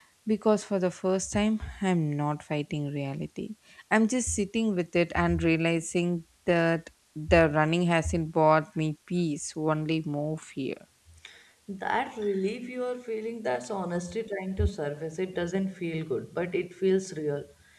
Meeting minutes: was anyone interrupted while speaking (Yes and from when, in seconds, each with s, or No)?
No